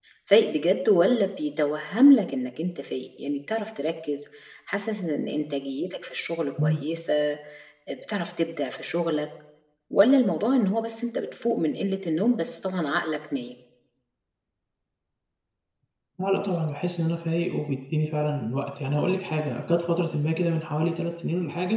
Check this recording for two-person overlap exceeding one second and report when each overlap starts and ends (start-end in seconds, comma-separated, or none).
none